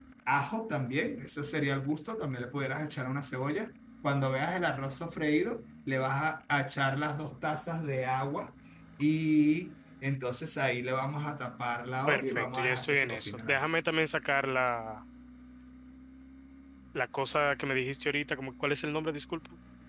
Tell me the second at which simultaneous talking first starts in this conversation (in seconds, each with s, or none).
12.1 s